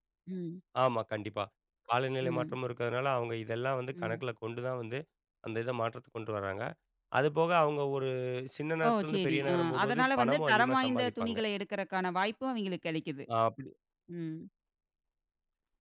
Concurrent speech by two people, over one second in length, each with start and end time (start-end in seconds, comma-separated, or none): 8.9-11.4